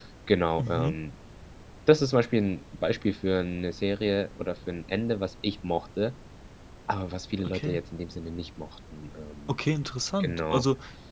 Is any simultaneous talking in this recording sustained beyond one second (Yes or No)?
No